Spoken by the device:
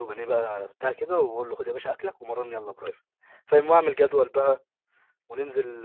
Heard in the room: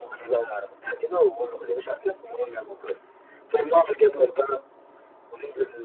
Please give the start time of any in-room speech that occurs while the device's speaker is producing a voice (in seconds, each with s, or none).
none